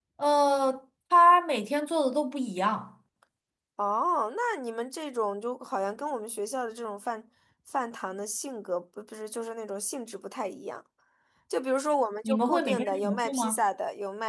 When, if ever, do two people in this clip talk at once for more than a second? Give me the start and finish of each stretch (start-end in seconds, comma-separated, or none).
12.2-13.6